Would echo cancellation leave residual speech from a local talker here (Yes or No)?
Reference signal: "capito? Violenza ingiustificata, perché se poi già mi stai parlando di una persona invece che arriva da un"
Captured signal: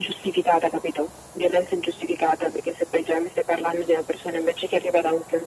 No